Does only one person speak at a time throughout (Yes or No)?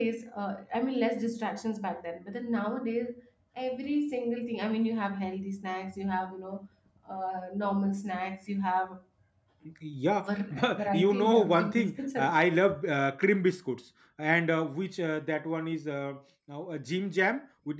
No